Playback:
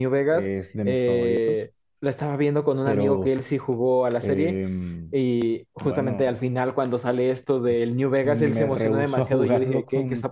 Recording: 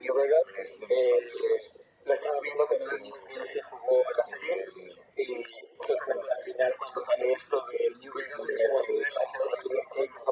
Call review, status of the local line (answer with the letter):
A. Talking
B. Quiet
B